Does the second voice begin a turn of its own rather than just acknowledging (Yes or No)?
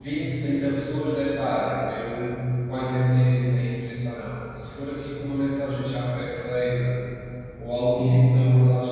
No